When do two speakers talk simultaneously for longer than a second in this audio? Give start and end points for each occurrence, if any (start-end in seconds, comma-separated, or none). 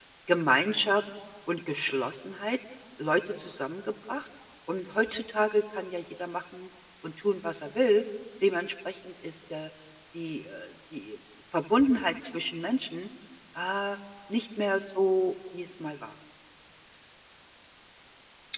none